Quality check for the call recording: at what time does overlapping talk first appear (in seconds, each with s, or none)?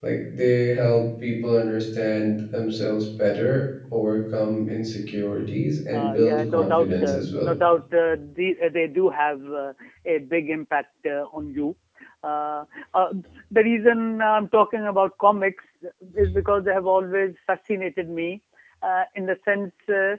5.9 s